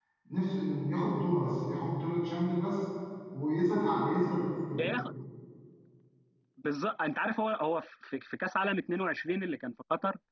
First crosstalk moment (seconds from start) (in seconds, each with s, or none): none